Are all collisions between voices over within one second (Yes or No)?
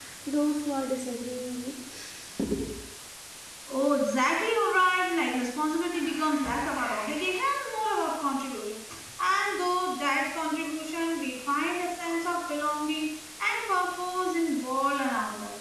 Yes